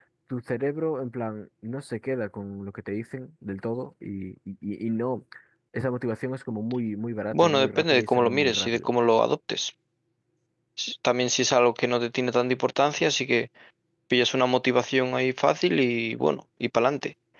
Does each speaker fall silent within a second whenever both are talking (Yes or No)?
No